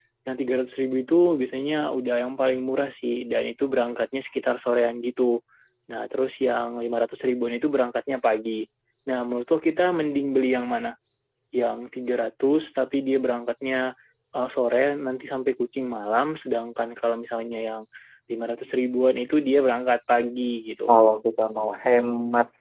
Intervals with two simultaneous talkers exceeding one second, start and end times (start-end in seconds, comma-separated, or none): none